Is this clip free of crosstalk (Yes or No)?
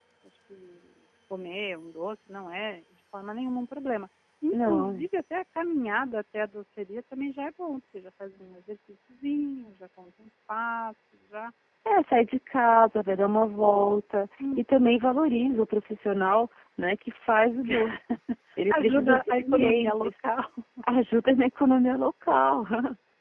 No